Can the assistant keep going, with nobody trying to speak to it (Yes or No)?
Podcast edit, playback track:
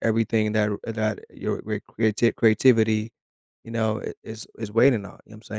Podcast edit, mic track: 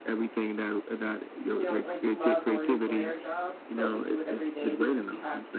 No